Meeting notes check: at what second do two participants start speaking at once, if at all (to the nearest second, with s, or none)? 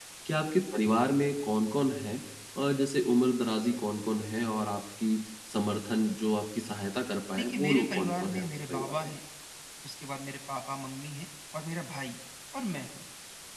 7 s